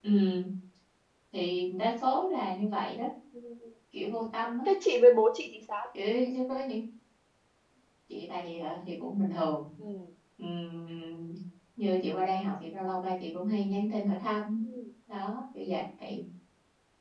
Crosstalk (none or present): none